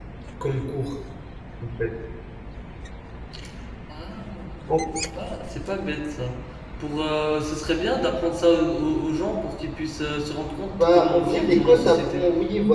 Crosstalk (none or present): present